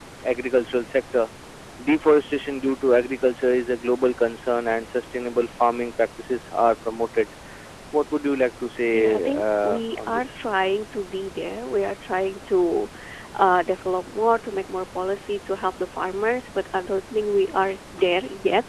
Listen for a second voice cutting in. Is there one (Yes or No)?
Yes